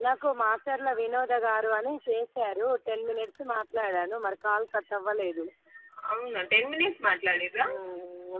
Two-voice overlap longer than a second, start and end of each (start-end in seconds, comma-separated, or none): none